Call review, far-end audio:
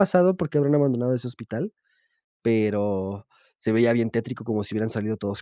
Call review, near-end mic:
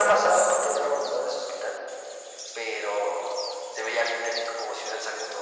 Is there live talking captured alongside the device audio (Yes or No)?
No